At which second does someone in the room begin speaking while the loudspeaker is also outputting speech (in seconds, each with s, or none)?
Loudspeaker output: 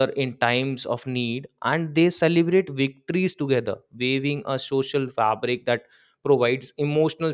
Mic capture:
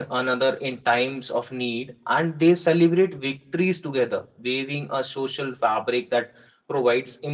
none